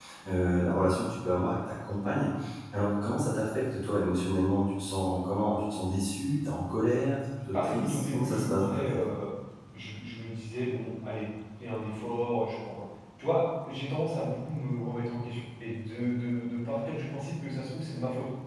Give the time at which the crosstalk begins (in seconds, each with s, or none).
7.5 s